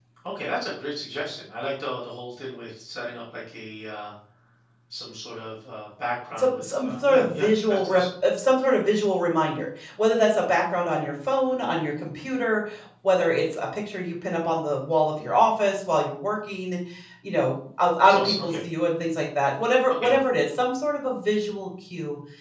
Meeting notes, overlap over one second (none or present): present